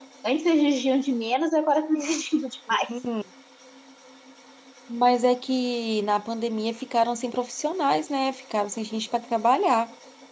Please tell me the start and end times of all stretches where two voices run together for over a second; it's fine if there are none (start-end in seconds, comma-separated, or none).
none